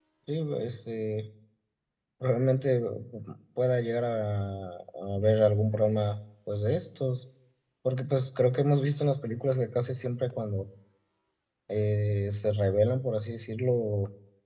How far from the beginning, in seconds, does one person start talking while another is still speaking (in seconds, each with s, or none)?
none